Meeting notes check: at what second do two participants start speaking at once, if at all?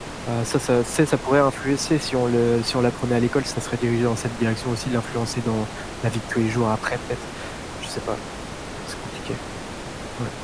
none

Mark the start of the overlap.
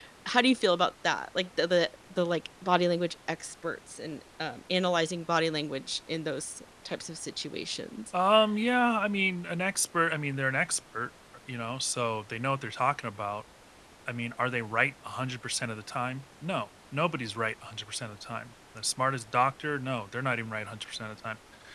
none

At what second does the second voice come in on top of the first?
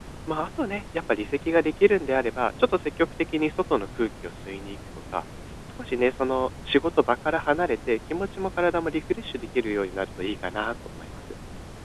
none

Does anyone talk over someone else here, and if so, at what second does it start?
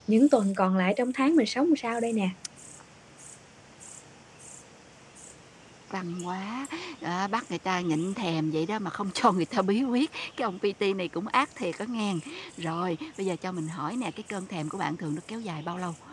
none

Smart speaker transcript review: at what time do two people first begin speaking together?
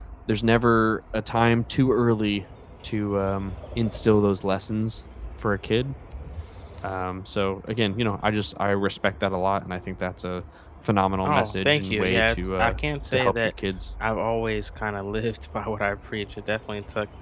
11 s

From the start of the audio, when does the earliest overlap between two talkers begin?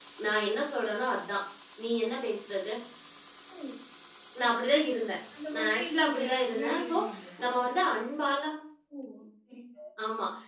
6 s

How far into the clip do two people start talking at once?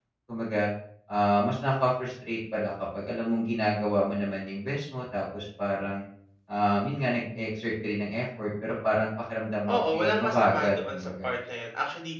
10 s

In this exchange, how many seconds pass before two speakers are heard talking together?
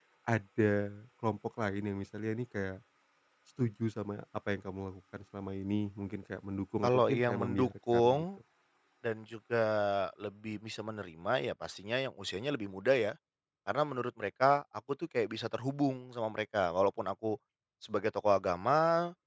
7 s

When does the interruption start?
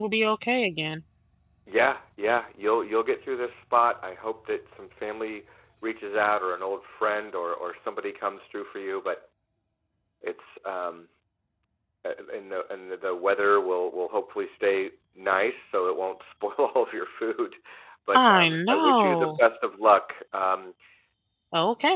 18 s

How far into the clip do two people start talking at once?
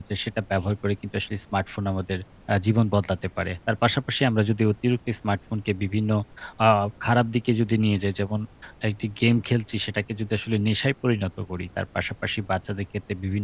none

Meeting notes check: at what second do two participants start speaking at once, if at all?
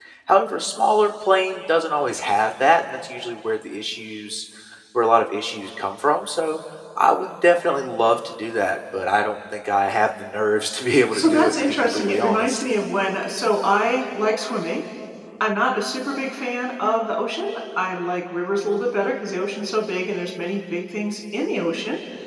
11 s

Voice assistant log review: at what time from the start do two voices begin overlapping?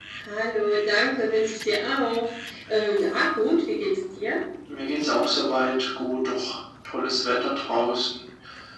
none

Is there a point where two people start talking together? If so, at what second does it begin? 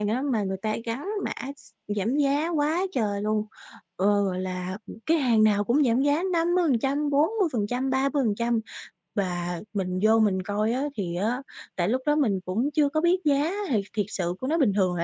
none

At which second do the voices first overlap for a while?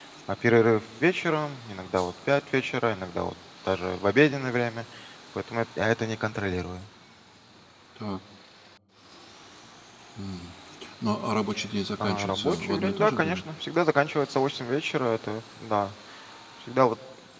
12 s

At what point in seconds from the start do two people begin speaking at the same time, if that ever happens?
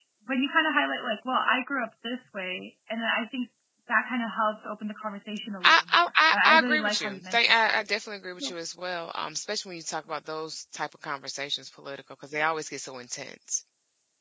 6 s

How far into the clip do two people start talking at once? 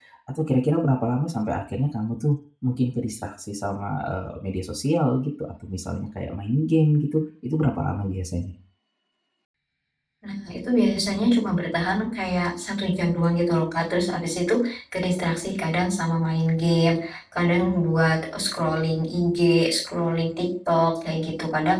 none

